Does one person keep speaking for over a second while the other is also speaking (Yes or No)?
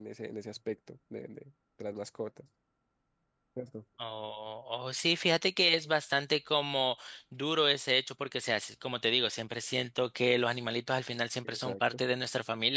No